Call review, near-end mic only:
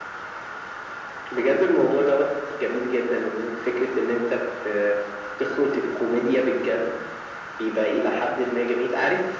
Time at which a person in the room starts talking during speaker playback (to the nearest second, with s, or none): none